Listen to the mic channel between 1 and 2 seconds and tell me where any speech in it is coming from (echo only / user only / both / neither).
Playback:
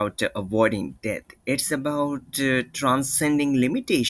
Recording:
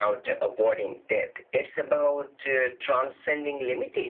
echo only